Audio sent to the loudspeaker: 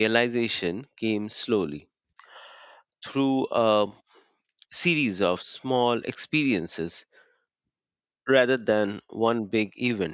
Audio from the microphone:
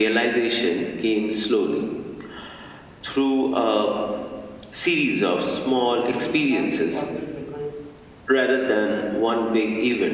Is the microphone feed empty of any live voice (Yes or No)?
No